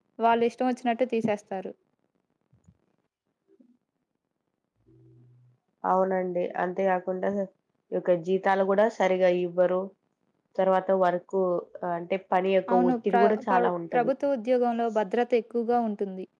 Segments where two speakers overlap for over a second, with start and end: 12.7-14.1

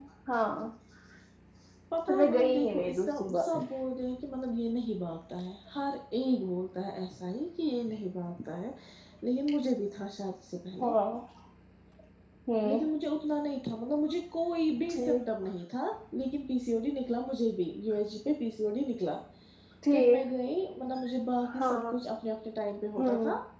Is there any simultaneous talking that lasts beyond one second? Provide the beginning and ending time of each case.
2.1-3.4

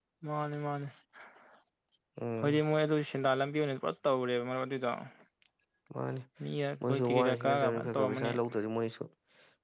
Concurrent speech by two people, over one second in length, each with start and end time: 6.9-8.3

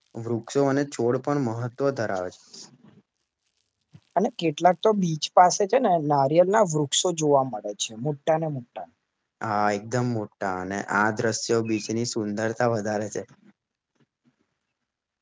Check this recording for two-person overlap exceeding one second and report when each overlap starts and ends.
none

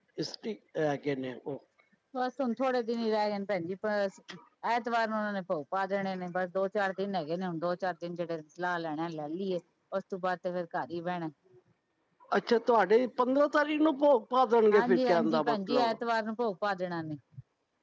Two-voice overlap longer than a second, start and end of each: 14.7-16.0

